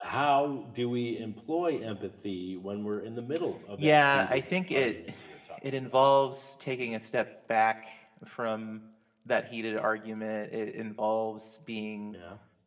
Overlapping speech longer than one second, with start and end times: 3.8-5.1

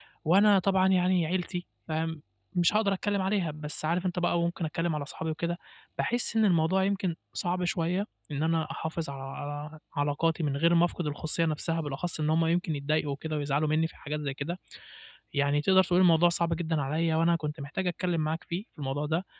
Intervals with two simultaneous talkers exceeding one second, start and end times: none

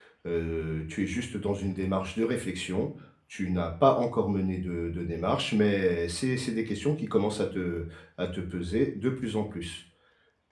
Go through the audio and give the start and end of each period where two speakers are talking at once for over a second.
none

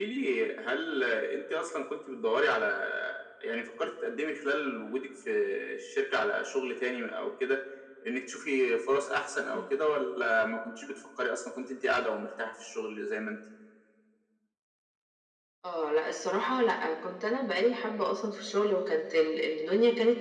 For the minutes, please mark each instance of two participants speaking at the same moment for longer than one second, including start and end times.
none

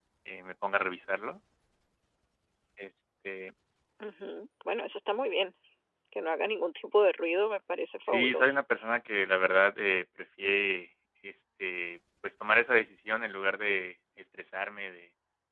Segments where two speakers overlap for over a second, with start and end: none

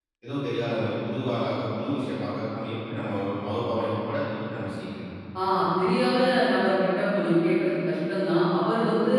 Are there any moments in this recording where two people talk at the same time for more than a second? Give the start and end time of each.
none

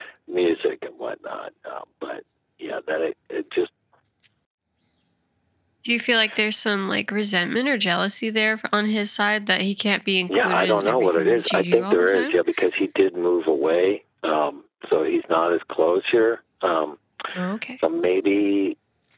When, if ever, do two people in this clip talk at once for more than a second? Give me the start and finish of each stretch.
10.3-12.3

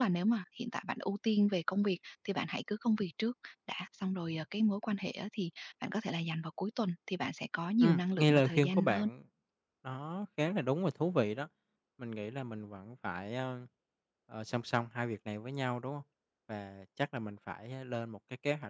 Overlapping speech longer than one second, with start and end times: 7.8-9.1

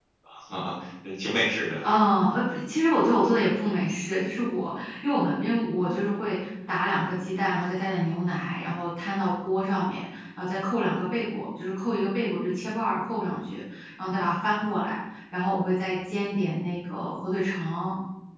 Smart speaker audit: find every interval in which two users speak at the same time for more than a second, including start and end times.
none

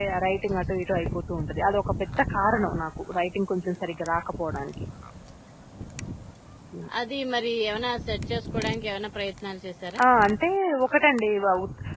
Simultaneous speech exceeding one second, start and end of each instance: none

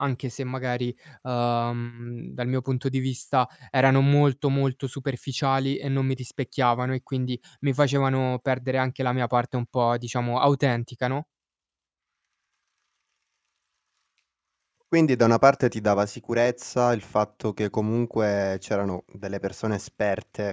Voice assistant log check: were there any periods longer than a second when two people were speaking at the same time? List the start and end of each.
none

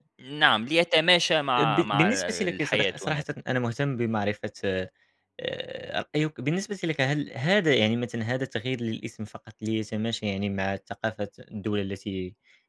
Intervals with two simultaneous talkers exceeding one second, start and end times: 1.6-3.2

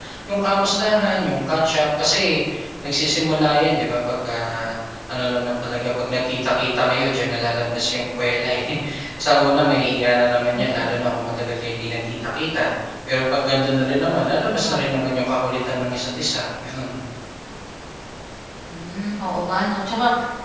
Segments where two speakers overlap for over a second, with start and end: none

